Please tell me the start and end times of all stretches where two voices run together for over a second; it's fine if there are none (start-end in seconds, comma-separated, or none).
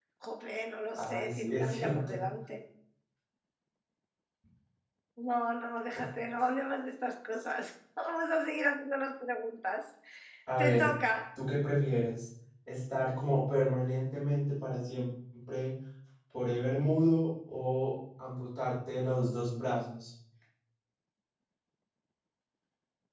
0.9-2.2